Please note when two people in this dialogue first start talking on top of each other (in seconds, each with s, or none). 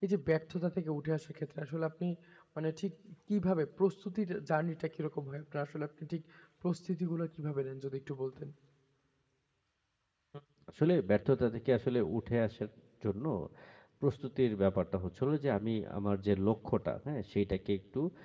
none